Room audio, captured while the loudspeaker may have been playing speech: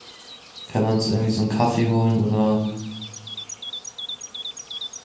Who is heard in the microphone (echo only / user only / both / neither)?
user only